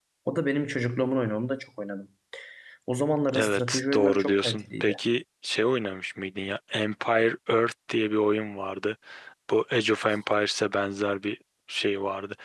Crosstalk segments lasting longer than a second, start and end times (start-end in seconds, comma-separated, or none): 3.3-5.0